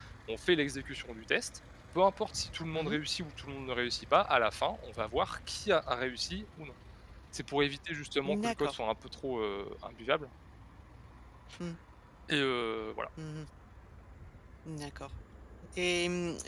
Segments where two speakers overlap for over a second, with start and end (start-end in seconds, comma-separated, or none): none